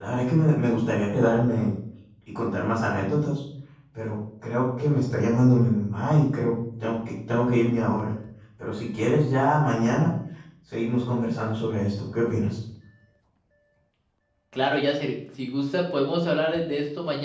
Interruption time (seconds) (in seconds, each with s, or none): none